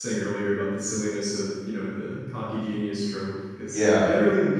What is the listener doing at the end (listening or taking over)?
listening